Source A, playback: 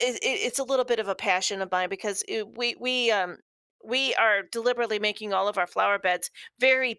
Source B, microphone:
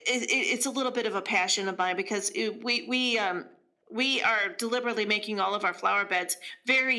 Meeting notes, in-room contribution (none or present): none